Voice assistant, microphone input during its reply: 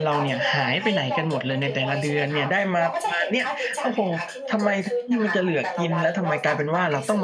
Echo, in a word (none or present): present